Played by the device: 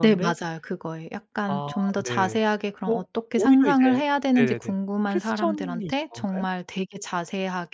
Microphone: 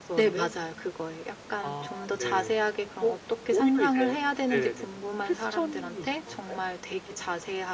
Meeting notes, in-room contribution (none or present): none